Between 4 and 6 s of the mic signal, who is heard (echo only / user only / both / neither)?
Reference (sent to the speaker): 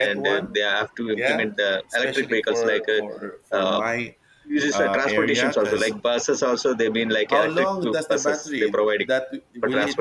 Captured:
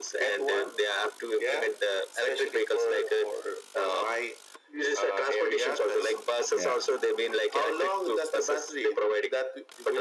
echo only